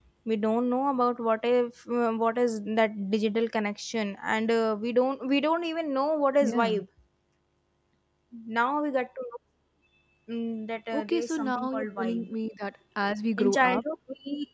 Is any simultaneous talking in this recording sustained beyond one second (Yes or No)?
Yes